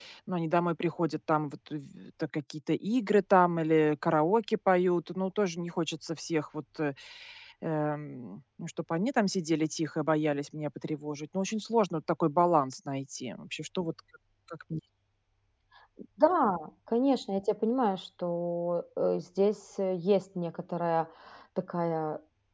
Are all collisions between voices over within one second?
Yes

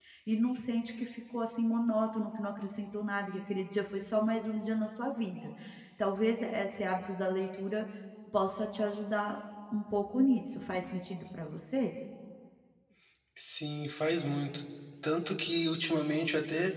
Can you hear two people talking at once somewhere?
No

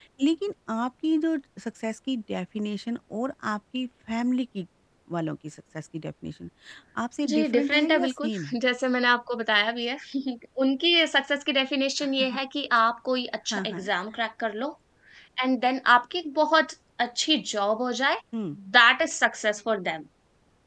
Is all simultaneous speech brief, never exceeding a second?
No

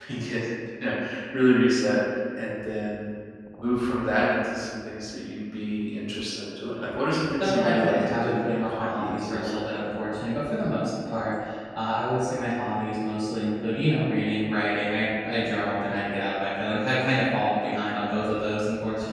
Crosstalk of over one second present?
Yes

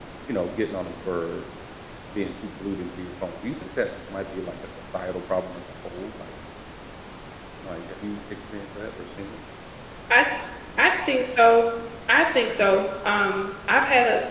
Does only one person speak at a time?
Yes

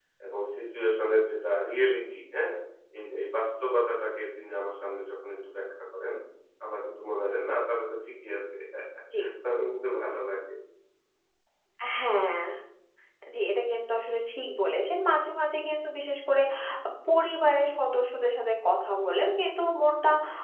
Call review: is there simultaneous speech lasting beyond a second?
No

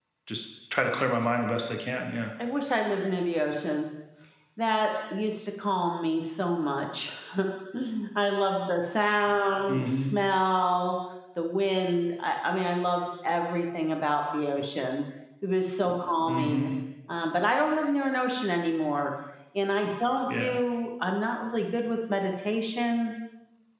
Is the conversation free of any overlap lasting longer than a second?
Yes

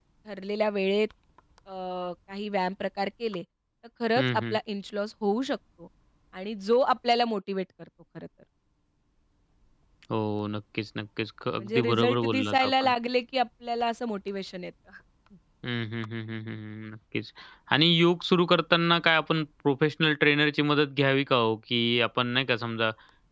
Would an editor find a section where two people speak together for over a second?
Yes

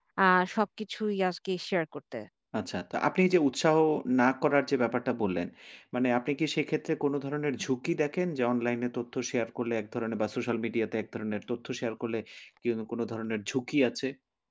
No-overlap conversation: Yes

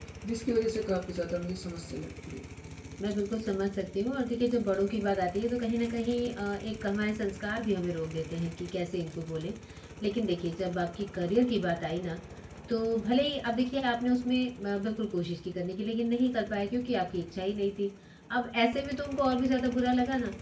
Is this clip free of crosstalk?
Yes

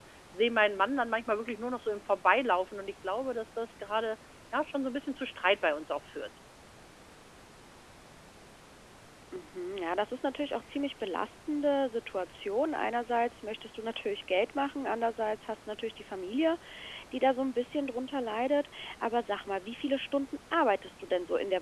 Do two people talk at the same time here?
No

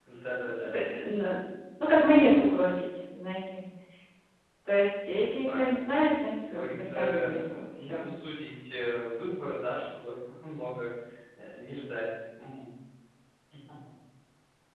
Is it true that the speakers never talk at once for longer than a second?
No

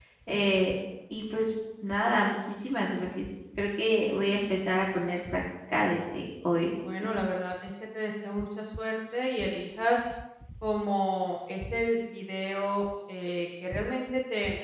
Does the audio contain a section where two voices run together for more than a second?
No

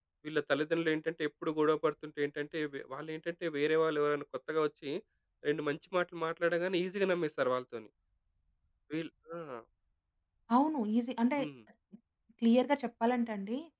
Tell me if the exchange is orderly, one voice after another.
Yes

